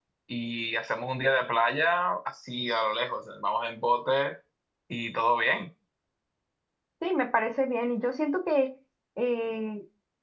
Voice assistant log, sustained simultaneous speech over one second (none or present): none